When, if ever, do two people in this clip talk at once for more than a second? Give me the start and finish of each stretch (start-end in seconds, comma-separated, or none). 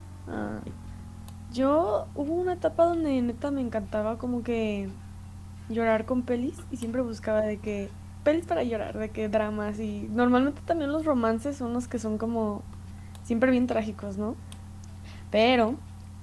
none